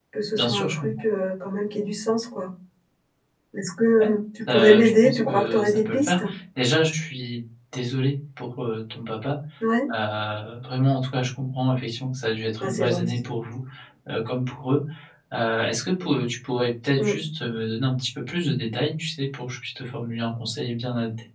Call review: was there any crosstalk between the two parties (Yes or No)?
Yes